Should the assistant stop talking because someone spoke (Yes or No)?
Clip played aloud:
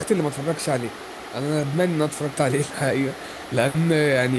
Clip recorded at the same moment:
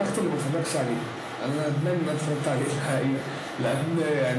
No